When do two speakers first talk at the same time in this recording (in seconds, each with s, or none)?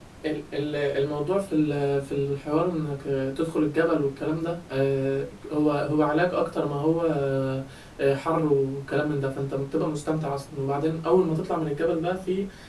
none